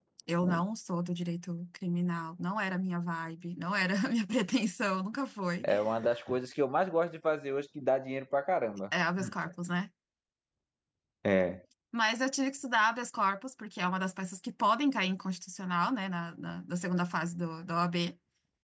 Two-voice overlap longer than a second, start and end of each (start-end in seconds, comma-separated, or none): none